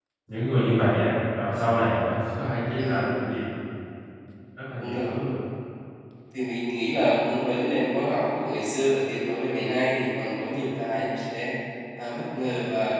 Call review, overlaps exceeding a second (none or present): none